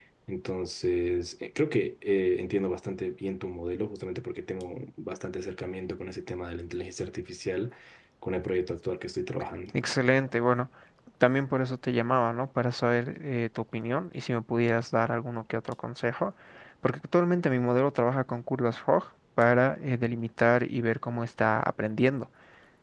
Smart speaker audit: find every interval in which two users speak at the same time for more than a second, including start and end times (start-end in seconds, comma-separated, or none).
none